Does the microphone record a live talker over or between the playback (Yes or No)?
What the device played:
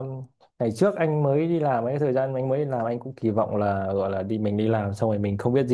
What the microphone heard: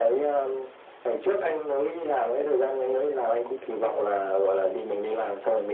No